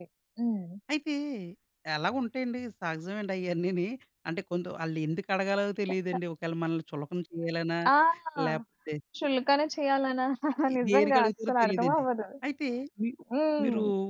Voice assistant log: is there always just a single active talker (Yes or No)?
No